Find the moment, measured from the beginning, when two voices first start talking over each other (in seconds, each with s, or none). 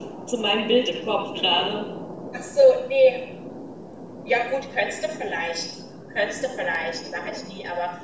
none